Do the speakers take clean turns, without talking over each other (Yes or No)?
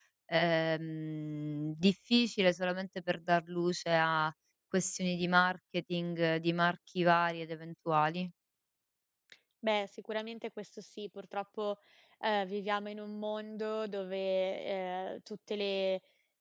Yes